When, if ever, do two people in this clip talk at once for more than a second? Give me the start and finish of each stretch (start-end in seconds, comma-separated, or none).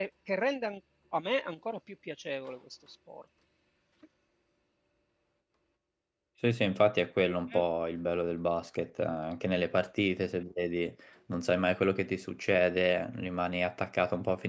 none